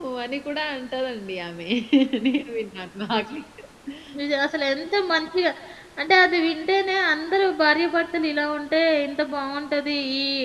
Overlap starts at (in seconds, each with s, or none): none